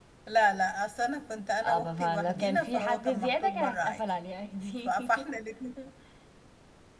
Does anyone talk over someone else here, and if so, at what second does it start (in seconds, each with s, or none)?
1.6 s